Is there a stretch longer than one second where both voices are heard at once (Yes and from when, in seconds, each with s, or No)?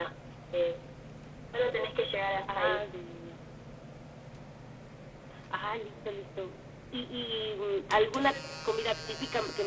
No